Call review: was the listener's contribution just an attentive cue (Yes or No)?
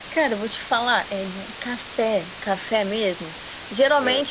Yes